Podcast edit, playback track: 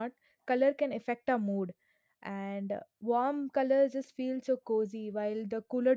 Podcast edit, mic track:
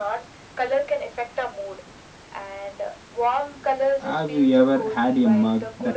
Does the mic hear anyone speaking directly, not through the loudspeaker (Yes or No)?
Yes